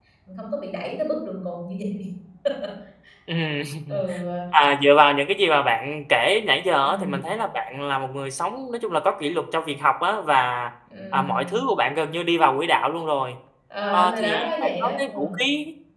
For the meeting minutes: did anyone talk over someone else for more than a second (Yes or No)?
Yes